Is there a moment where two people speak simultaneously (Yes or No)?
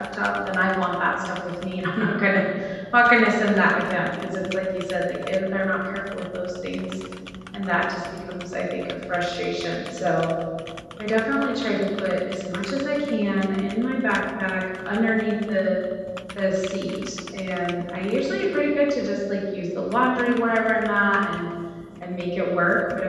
No